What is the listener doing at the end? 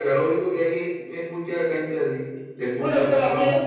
taking over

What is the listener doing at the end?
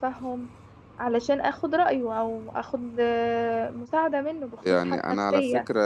taking over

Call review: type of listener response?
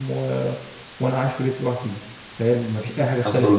taking over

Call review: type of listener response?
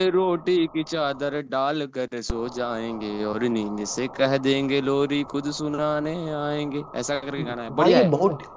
taking over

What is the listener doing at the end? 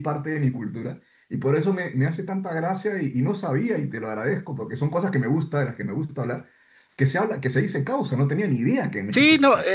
taking over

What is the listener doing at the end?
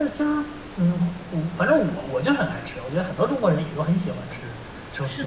taking over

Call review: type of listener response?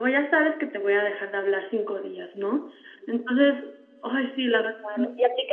taking over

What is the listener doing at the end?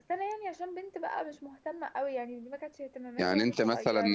taking over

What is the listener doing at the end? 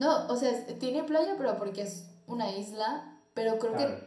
listening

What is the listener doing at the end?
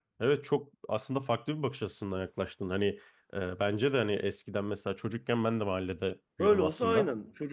taking over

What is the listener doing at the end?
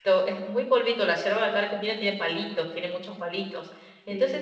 listening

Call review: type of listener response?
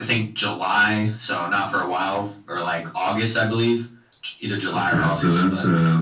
taking over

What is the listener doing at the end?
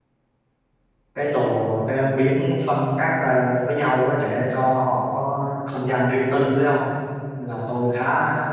listening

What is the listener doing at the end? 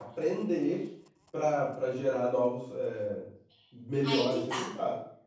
taking over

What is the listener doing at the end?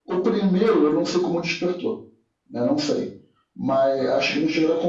listening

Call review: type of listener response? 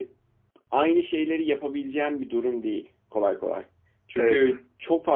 listening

